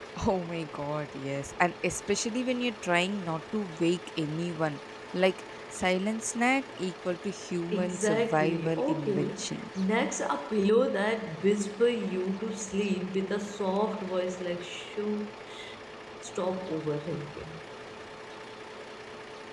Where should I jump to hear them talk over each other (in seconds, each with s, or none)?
7.7 s